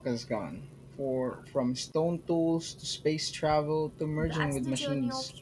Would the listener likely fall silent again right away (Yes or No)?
No